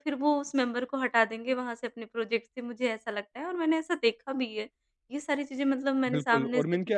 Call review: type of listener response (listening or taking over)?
taking over